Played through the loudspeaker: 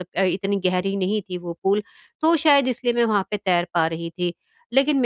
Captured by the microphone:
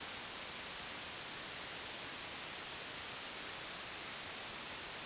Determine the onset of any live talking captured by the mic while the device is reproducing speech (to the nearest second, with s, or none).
none